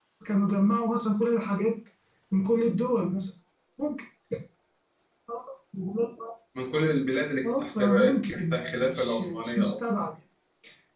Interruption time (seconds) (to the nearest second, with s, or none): 7 s